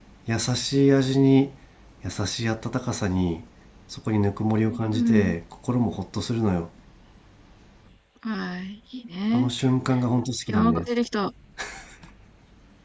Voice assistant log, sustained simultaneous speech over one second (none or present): none